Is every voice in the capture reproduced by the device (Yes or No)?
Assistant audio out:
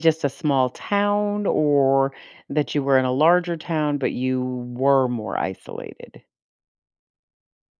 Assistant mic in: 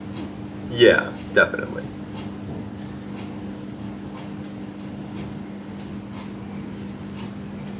No